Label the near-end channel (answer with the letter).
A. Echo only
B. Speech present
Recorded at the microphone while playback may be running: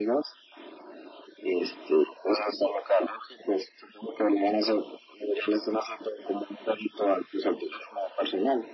A